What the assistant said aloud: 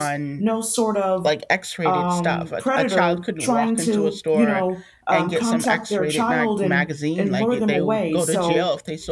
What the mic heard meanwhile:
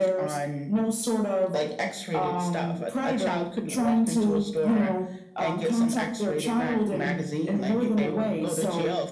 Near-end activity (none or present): none